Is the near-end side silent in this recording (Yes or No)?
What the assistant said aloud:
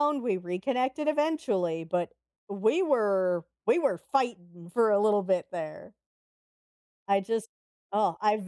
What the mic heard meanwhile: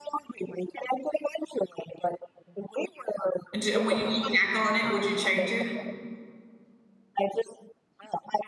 No